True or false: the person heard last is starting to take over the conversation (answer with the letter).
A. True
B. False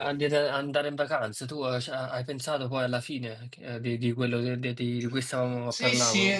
A